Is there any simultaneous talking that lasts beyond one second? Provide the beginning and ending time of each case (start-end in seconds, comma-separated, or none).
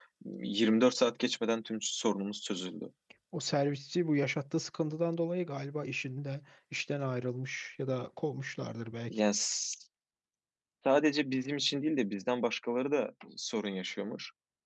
none